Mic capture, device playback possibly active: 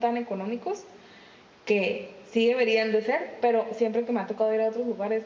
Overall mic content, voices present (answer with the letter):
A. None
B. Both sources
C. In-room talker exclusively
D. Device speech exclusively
C